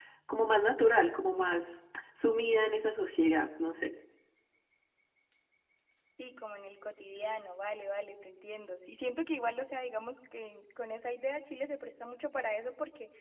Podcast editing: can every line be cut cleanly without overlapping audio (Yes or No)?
Yes